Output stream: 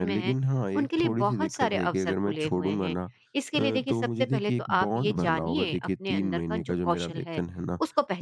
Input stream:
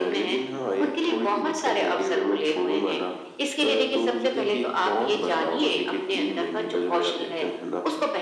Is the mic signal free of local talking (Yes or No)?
Yes